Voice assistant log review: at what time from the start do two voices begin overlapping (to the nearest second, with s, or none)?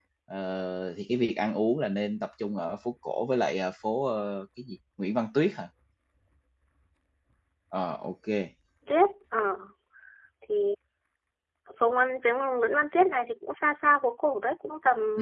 none